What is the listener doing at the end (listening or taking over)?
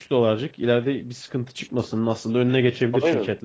taking over